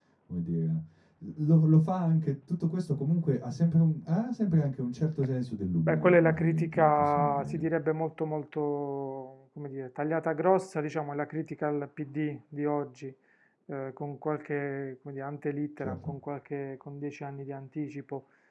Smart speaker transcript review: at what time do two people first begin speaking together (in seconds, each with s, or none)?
5.9 s